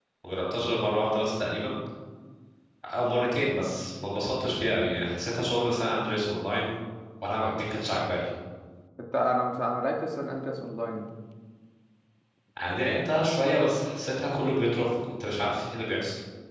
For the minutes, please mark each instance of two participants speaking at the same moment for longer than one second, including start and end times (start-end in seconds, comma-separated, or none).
none